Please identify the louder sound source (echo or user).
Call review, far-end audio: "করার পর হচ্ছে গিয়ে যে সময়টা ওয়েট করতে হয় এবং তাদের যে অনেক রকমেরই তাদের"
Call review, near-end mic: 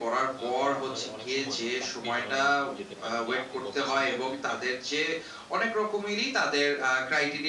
echo